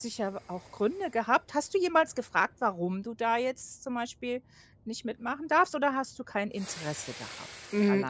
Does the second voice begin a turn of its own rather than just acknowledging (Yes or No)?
Yes